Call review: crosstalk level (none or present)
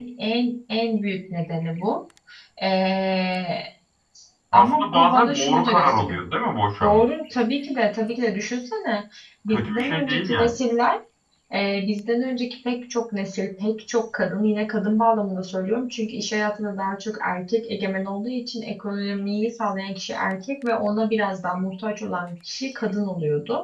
present